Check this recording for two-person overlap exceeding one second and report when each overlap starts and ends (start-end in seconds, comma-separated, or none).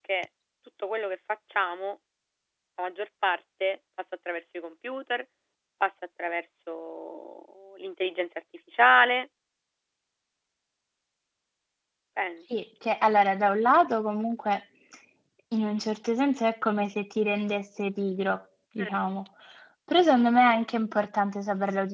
none